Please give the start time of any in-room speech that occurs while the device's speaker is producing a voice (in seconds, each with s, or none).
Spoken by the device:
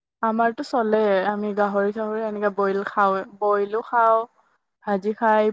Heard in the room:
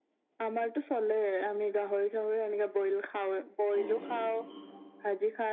3.7 s